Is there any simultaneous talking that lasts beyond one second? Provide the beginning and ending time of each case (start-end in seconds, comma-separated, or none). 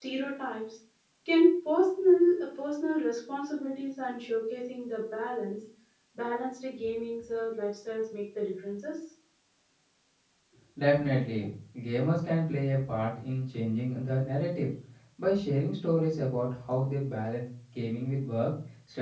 none